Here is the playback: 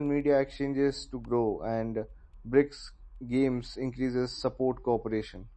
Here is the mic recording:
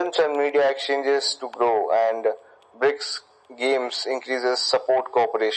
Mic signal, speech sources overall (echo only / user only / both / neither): echo only